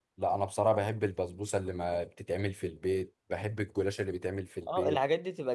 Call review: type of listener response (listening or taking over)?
taking over